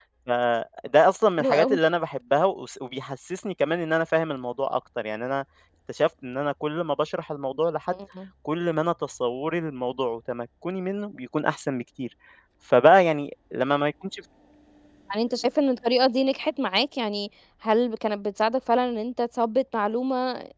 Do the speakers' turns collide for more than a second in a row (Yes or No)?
No